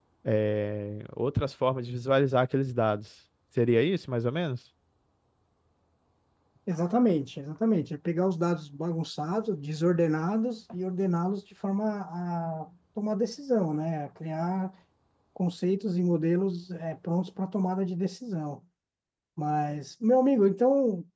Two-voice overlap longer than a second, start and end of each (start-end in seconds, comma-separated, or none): none